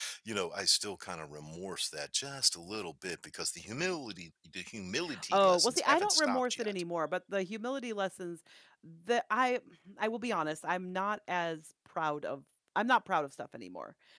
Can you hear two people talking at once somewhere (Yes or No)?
Yes